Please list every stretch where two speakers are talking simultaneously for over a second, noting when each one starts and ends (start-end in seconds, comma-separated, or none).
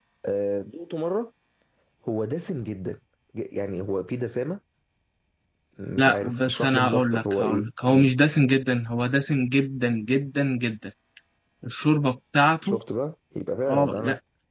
6.0-8.1